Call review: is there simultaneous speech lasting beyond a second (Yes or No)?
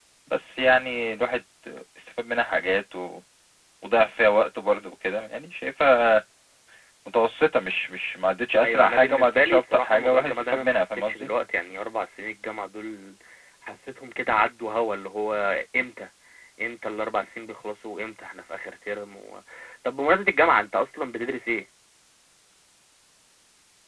Yes